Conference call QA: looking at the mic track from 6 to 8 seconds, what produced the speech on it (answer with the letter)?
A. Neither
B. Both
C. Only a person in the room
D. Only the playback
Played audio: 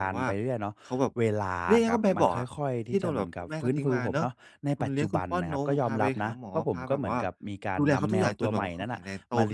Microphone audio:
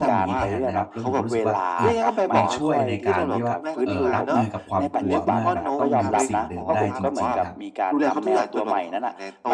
B